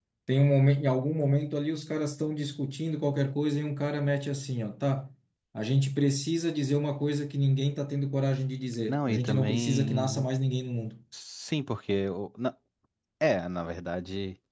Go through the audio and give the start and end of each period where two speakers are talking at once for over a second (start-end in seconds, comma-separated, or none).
8.9-10.3